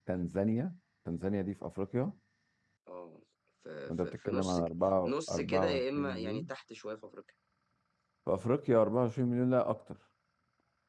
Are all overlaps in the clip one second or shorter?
No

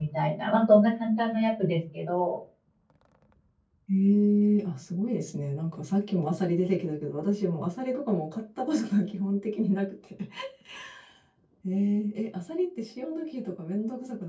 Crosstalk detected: No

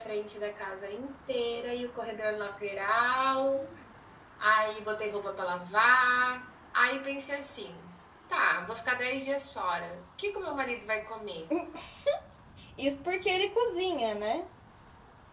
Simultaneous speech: No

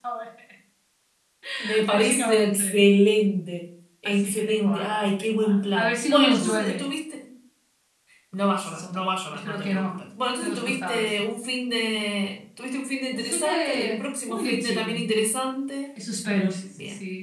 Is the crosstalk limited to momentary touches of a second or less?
No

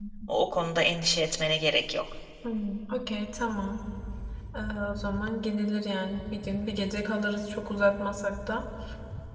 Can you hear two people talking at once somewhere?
No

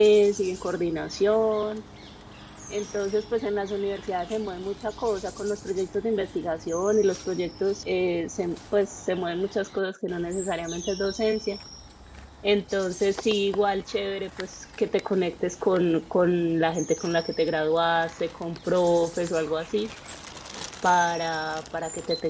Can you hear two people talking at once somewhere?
No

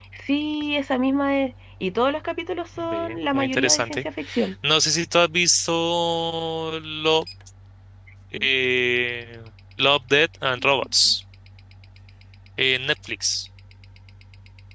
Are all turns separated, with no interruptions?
No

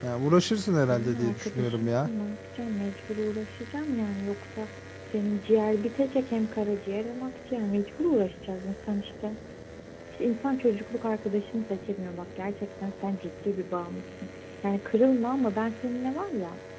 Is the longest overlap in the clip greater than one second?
Yes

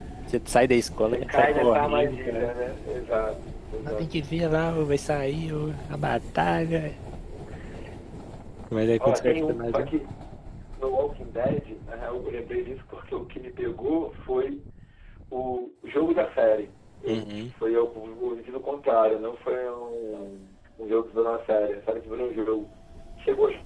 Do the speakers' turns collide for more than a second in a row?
Yes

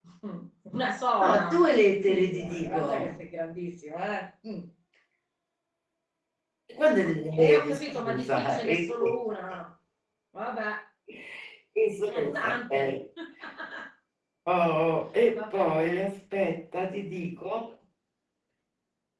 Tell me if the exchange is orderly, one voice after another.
No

